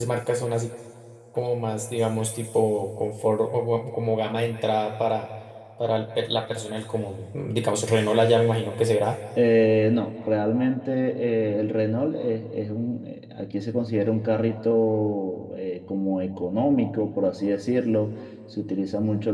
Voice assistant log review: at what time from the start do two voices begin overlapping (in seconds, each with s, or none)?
none